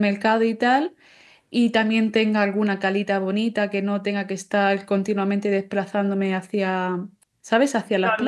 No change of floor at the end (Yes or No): No